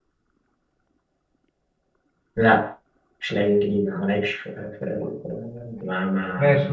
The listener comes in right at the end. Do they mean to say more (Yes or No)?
Yes